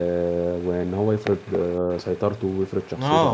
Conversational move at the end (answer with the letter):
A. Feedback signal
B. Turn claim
B